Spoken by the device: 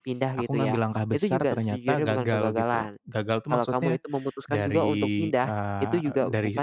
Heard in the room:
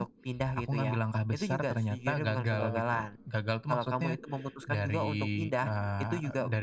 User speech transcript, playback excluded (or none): mmm,